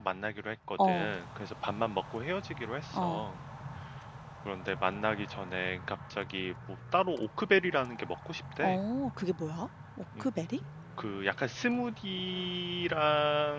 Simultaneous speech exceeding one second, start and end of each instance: none

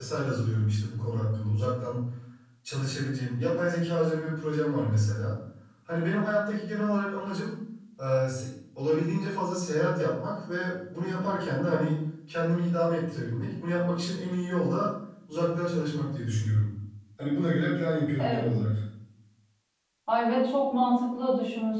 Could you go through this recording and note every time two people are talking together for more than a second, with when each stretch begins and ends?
none

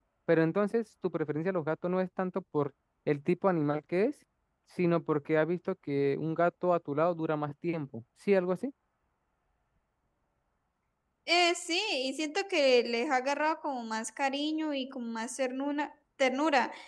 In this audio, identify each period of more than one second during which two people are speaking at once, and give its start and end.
none

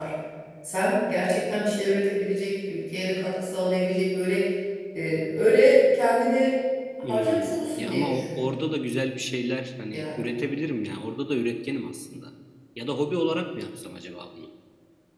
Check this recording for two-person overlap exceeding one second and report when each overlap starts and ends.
7.1-8.5

